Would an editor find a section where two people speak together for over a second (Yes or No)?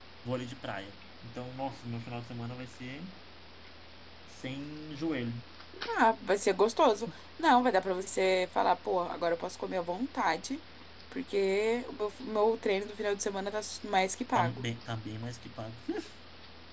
No